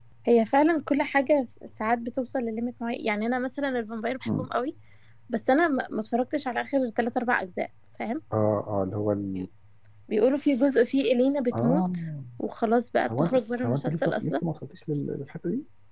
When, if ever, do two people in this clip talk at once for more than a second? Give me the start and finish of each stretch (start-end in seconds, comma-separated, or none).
13.0-14.4